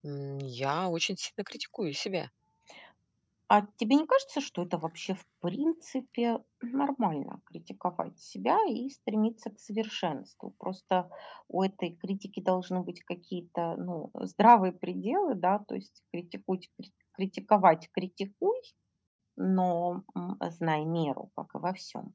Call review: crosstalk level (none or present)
none